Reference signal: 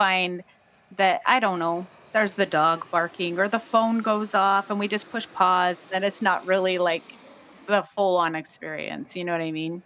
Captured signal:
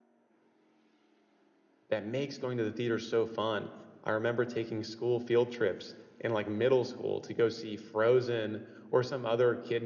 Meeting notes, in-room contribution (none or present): present